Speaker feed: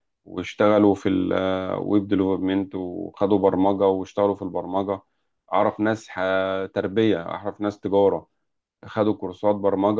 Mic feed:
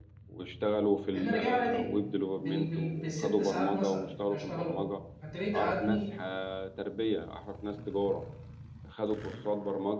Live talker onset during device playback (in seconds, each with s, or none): 1.1 s